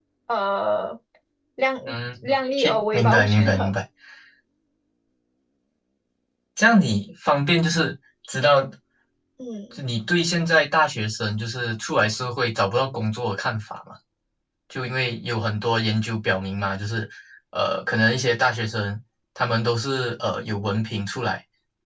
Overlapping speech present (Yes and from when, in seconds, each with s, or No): Yes, from 2.2 s